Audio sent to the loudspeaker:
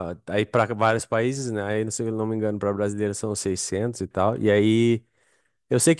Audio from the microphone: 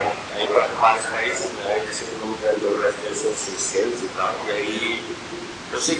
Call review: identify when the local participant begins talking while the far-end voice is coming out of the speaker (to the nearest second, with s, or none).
none